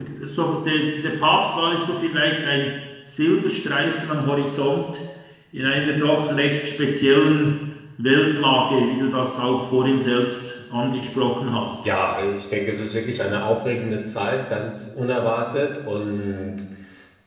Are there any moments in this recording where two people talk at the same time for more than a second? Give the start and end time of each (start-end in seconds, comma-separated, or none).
none